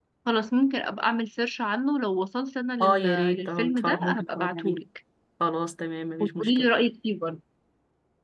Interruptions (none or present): present